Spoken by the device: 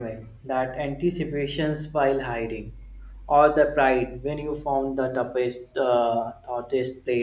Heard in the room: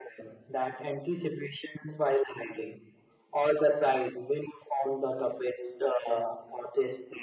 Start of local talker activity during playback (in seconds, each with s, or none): none